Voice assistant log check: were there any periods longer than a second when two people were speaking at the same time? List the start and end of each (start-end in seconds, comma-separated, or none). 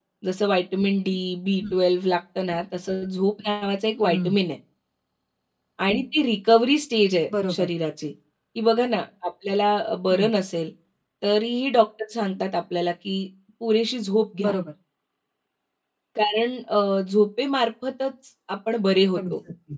none